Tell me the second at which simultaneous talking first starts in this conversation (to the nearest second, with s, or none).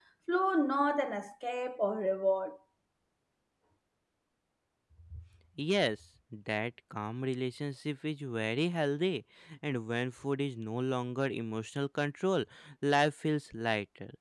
none